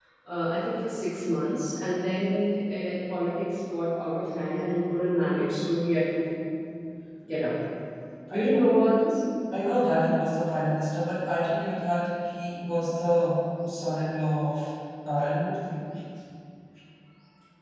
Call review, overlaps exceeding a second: none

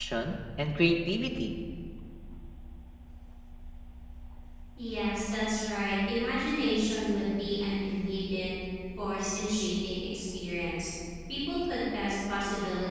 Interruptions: none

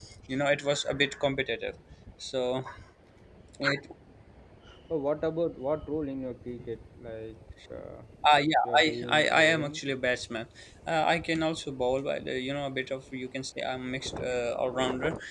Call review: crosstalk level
present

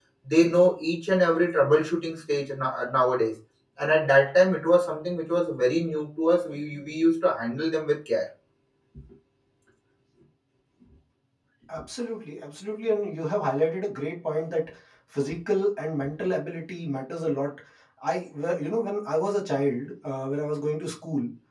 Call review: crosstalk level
none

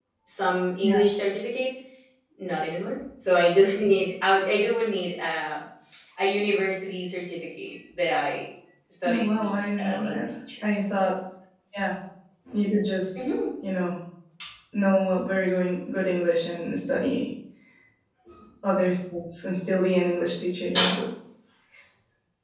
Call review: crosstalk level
present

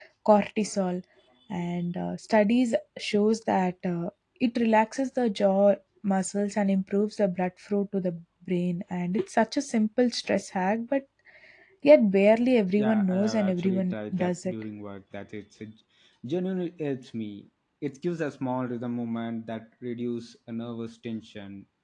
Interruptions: present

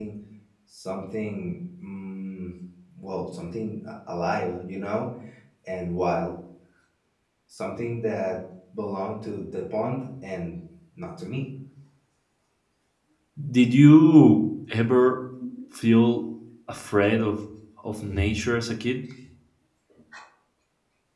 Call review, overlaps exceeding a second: none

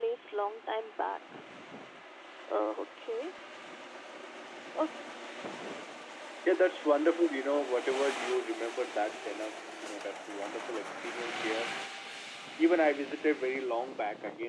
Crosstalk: none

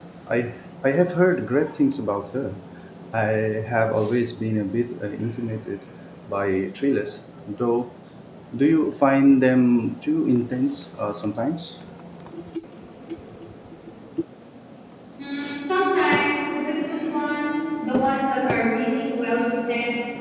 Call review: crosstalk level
none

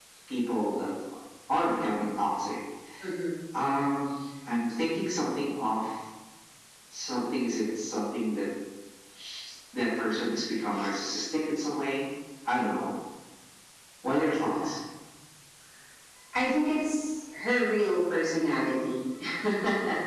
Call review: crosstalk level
none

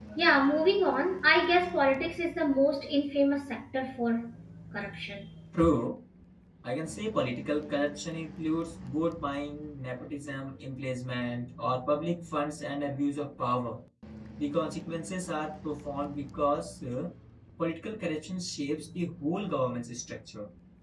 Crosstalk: none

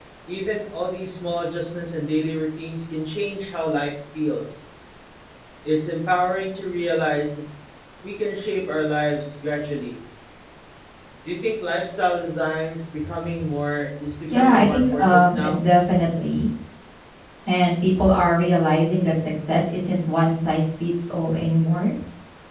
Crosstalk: present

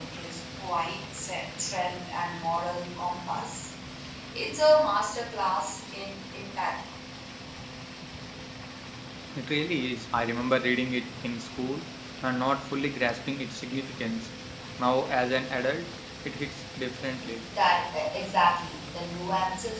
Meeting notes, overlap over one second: none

